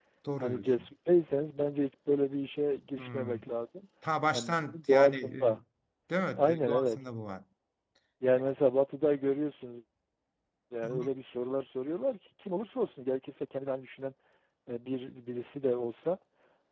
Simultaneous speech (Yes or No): Yes